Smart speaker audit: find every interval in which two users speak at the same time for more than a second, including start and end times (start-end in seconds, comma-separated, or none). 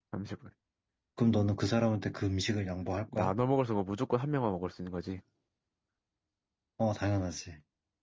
none